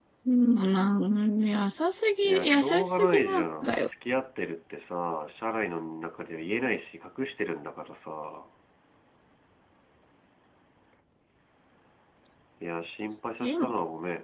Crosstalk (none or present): present